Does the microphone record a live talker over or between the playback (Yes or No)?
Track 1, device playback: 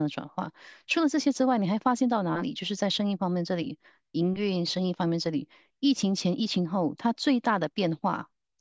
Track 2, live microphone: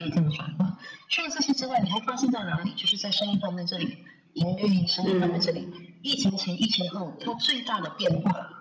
Yes